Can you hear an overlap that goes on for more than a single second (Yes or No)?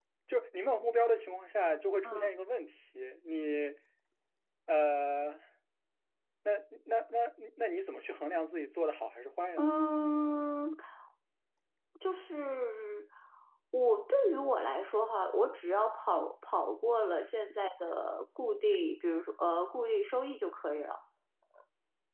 No